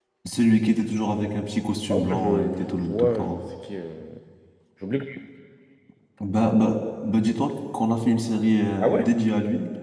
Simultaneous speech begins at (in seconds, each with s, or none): 1.9 s